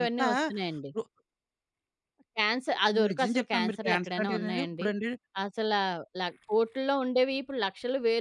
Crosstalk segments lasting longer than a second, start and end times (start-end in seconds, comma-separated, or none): 3.1-4.8